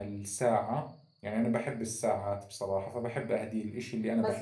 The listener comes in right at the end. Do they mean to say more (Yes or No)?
Yes